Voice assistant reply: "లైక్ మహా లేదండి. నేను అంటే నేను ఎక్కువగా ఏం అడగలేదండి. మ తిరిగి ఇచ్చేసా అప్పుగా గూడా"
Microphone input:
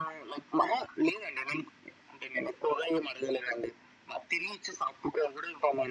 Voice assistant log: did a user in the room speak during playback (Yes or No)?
No